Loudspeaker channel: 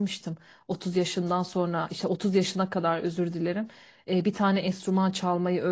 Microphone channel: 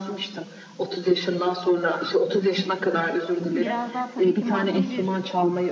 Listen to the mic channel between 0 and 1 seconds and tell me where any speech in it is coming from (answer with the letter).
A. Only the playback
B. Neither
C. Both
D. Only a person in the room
A